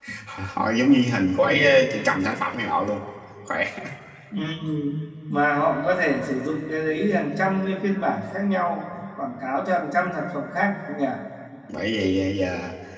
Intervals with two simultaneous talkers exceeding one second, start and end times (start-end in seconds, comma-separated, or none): none